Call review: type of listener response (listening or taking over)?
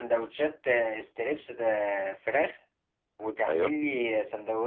listening